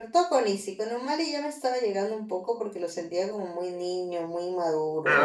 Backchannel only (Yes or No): No